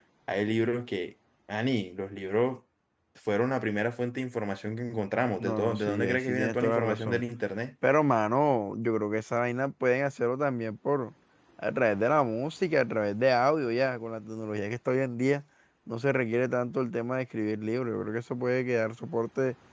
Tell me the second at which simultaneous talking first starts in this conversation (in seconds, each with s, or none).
5.4 s